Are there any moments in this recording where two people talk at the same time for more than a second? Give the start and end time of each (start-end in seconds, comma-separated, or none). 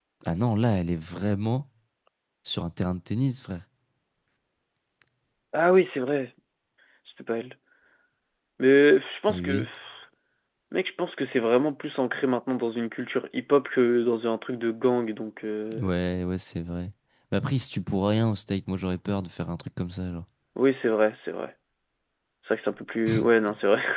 none